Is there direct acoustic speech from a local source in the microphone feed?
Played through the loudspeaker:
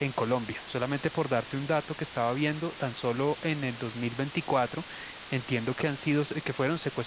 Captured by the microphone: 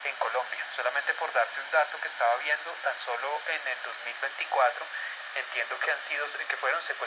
No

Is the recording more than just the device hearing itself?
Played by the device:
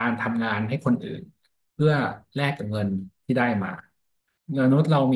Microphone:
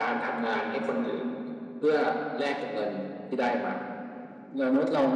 No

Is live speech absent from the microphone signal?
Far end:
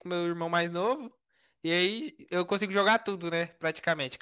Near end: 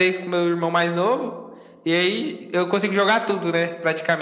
Yes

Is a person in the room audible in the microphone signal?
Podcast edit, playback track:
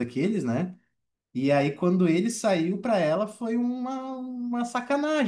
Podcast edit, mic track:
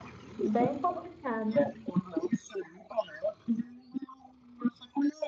Yes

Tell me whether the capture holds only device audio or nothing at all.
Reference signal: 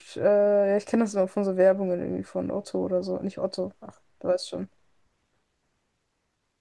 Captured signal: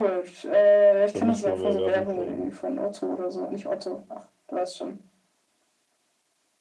No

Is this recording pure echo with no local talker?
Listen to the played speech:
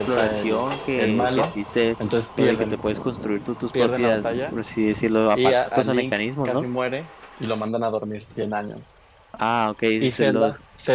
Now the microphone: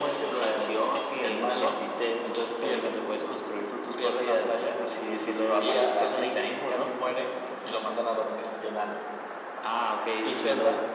Yes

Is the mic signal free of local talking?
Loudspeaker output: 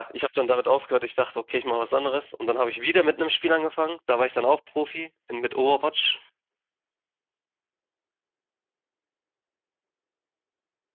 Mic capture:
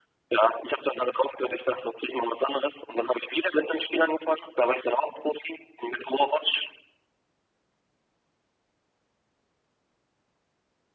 Yes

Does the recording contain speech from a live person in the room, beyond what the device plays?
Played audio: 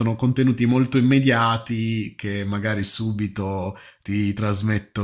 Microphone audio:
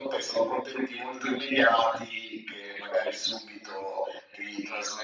No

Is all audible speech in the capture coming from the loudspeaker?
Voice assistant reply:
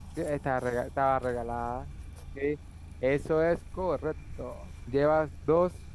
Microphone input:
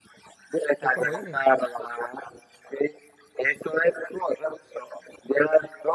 No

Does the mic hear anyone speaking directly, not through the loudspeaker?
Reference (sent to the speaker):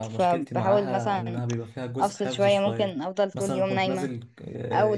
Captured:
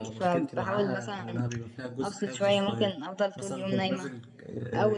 No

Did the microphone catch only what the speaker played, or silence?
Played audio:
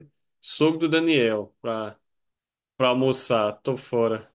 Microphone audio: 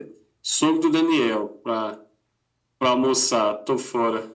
Yes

